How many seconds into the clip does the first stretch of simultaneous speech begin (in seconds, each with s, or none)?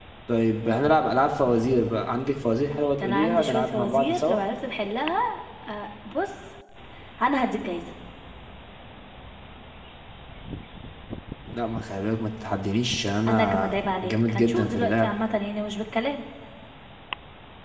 3.0 s